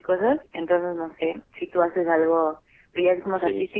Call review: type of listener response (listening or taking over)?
listening